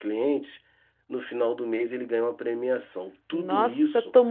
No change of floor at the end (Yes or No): No